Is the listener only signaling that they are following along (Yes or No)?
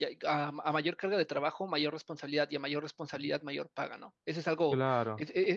Yes